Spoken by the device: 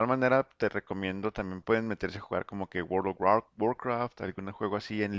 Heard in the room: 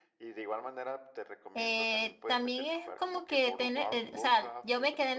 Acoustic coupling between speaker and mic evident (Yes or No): Yes